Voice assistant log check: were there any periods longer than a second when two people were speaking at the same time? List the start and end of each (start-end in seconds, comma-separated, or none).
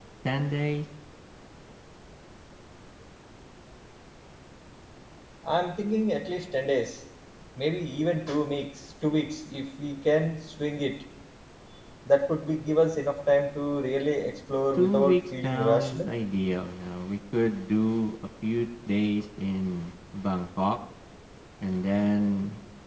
14.8-16.0